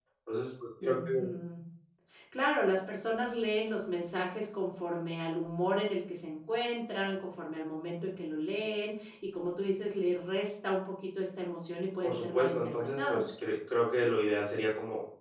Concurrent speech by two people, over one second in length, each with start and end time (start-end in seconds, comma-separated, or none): 12.0-13.3